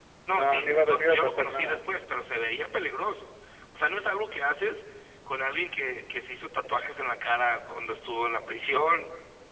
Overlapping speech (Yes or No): Yes